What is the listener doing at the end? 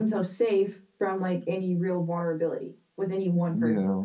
taking over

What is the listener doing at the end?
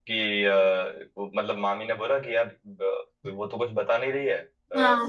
listening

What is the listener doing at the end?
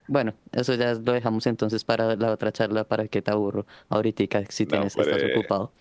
taking over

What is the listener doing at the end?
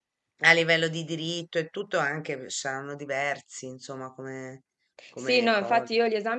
taking over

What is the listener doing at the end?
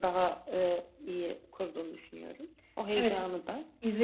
taking over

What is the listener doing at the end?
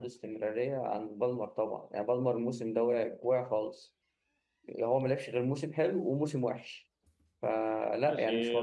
taking over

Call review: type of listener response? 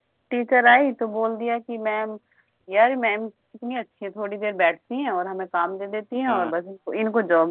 listening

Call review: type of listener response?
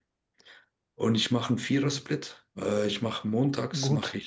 listening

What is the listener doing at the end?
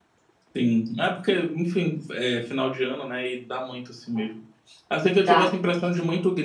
listening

